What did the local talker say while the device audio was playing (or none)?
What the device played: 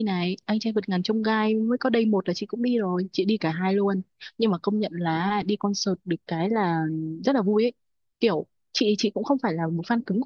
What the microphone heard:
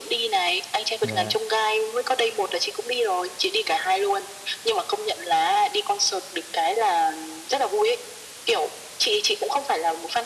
dạ